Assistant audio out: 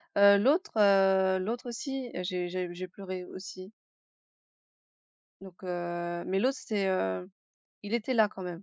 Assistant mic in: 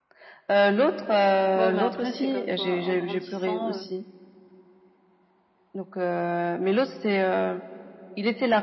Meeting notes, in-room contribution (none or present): present